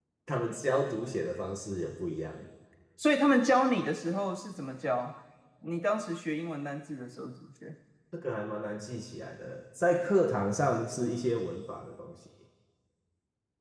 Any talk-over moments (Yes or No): No